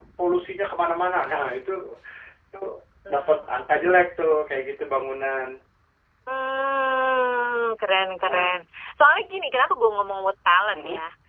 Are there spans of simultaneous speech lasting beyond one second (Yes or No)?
No